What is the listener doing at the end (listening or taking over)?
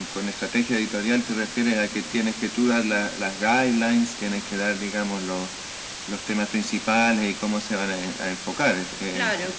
taking over